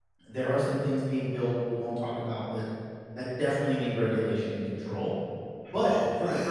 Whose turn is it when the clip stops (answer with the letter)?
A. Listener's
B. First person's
B